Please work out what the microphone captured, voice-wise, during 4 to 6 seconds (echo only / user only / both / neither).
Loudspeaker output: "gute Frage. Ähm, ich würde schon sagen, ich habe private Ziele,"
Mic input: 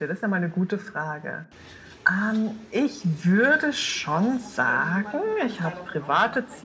both